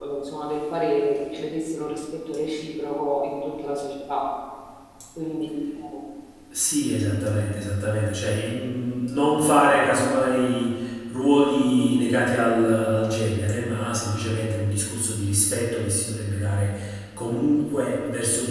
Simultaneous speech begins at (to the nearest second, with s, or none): none